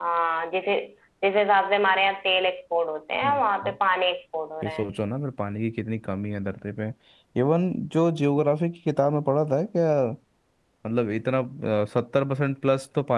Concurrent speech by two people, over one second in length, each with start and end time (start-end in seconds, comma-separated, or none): none